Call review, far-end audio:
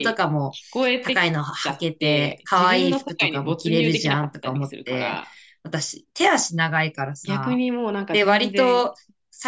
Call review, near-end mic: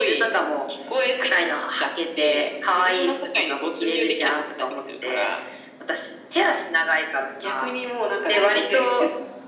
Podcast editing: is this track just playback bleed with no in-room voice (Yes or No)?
No